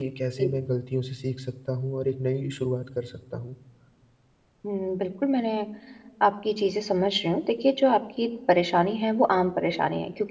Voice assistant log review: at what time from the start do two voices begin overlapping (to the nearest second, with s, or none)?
none